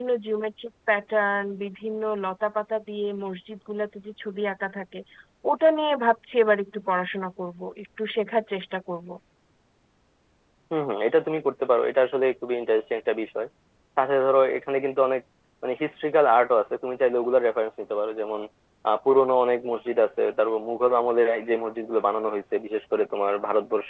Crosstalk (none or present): none